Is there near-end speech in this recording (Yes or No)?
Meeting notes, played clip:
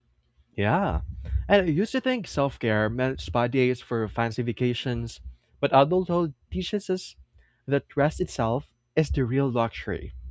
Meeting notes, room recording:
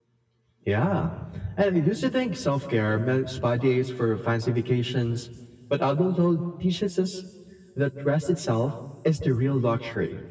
No